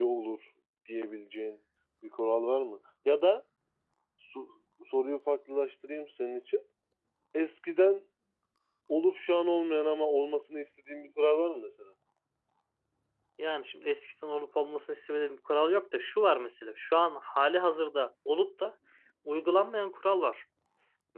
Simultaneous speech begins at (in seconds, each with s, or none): none